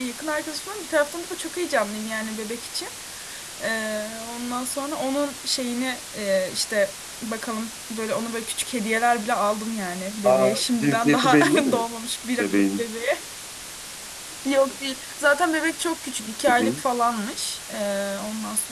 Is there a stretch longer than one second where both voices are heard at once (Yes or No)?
Yes